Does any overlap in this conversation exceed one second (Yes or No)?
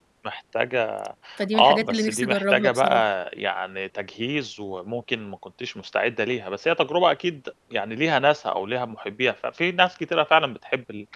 Yes